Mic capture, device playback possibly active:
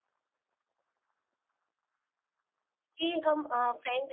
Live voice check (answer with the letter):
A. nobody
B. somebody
B